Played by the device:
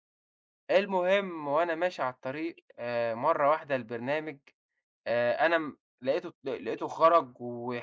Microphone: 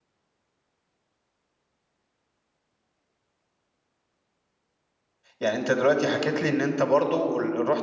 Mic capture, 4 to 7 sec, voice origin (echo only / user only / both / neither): user only